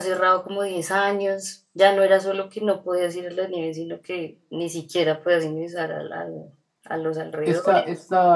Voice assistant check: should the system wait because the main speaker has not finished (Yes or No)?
No